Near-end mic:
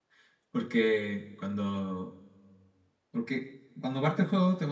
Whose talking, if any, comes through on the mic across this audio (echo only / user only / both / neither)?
user only